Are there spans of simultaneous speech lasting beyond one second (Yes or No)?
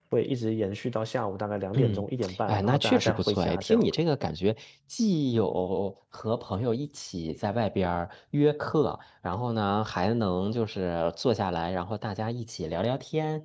Yes